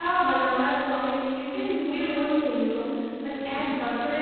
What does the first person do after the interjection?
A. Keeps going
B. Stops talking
A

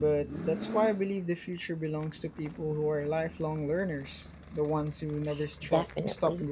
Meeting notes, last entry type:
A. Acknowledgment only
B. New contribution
B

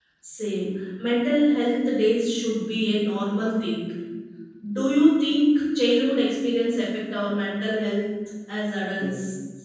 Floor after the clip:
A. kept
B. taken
B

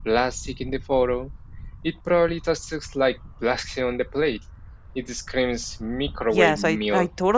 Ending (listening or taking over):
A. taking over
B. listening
A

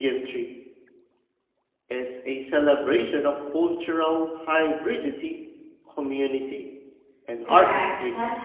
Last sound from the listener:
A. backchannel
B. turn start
B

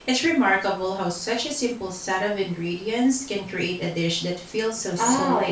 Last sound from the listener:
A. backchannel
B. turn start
B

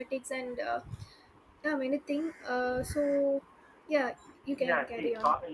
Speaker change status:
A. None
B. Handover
B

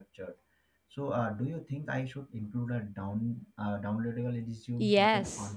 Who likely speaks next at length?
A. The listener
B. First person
A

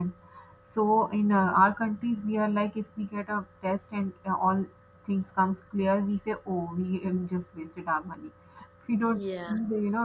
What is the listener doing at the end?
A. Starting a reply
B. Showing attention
B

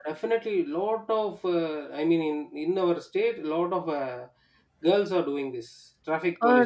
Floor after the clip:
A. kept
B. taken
B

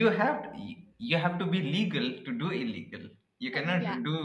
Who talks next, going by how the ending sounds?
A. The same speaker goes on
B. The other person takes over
A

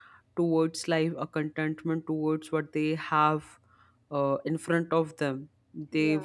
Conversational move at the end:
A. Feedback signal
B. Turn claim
A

